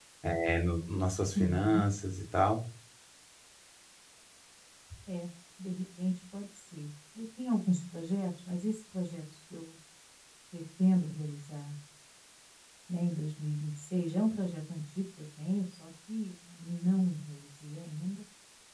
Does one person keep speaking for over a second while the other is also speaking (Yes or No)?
No